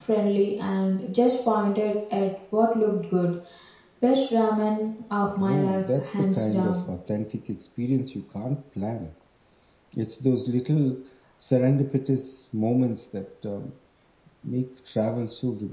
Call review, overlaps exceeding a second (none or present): present